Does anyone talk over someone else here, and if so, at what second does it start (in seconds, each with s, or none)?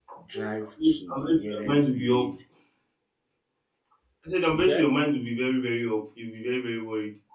0.8 s